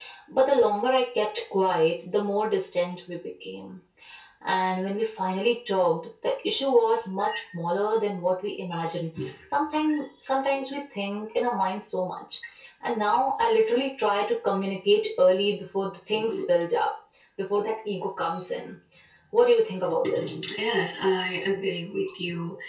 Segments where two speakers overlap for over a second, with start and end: none

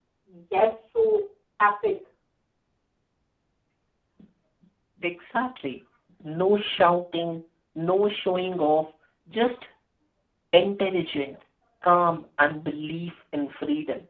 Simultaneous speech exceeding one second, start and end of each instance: none

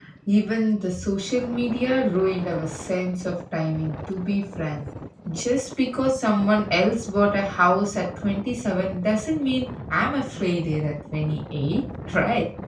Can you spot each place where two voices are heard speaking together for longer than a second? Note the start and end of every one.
none

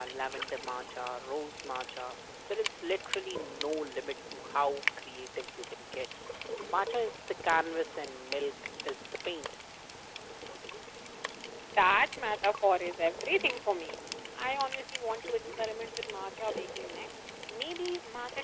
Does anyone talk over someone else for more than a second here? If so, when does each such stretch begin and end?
none

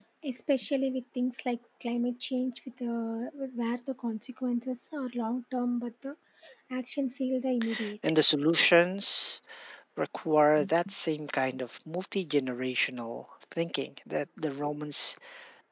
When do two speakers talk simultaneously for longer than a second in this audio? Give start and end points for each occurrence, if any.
none

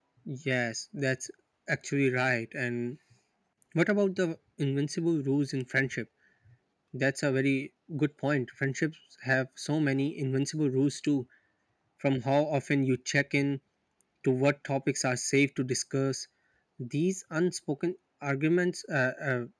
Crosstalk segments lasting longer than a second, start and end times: none

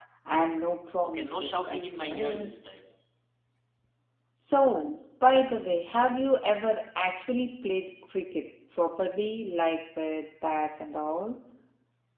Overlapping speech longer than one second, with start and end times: 1.0-2.5

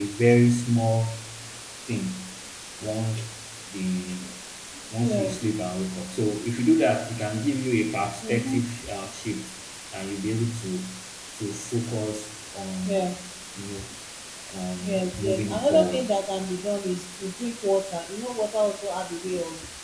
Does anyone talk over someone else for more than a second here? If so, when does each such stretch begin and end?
14.8-16.1

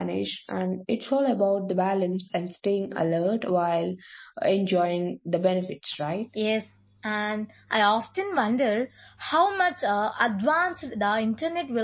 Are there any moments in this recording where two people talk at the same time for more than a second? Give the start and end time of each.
none

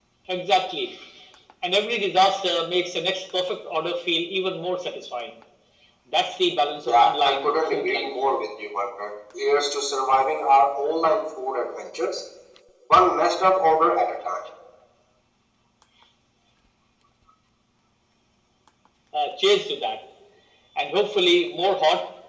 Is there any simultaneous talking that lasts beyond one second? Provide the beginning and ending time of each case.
6.9-8.1

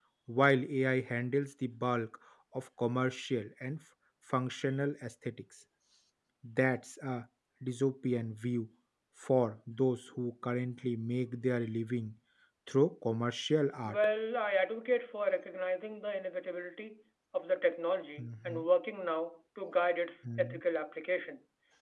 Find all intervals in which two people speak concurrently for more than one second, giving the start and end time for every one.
none

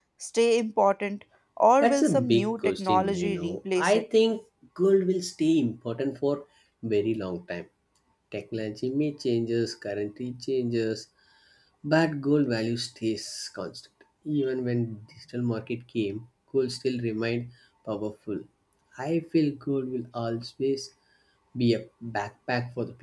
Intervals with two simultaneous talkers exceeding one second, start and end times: 1.8-4.0

